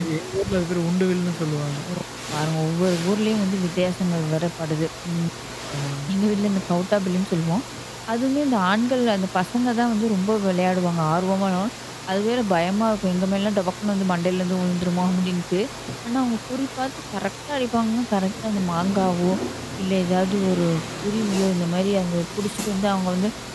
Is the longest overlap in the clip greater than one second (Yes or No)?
No